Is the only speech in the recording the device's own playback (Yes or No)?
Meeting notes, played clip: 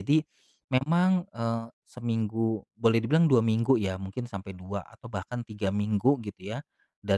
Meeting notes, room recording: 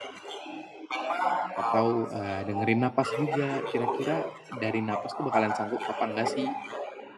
No